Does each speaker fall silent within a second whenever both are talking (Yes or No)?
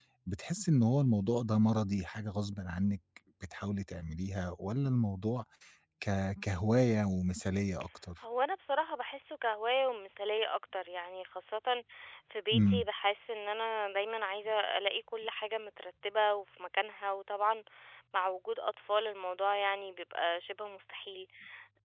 Yes